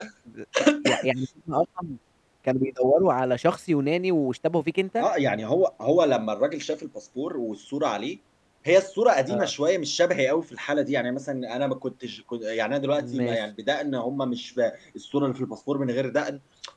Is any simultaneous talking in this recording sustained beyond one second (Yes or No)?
No